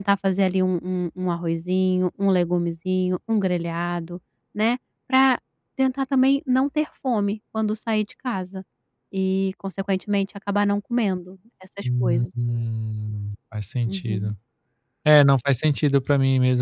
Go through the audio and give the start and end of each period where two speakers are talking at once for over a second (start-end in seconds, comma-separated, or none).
none